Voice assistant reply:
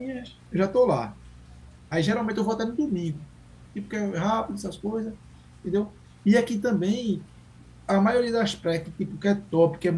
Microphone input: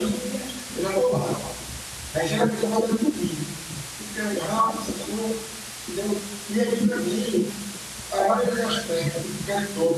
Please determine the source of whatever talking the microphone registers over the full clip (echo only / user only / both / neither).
echo only